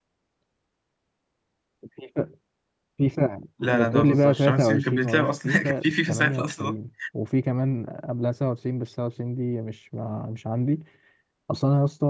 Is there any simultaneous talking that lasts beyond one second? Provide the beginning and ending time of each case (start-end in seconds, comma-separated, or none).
3.6-6.7